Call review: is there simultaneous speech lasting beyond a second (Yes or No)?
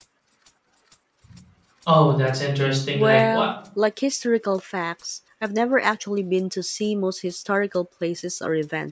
No